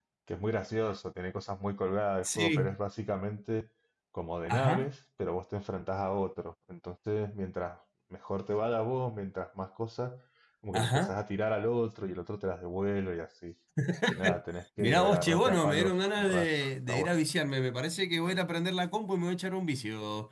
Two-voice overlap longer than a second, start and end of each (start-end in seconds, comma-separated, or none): 14.8-17.2